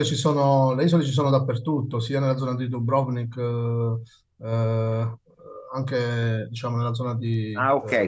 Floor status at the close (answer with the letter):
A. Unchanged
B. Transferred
B